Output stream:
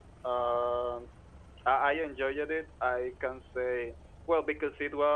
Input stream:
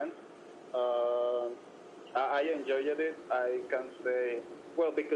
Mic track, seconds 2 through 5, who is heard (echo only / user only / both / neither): echo only